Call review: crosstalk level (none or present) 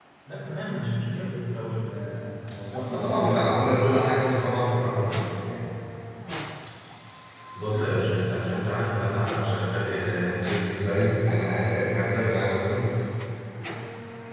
present